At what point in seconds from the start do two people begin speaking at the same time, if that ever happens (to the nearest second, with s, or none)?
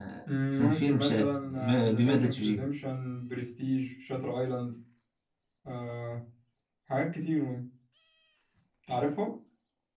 1 s